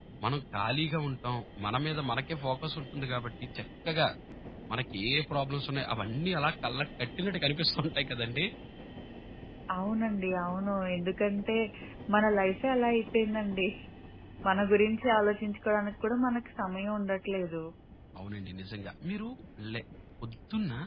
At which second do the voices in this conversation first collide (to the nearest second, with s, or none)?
none